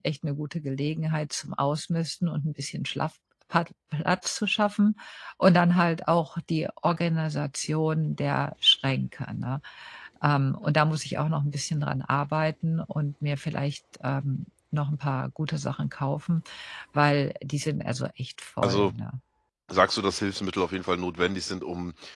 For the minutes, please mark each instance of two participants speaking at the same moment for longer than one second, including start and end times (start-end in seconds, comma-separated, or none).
none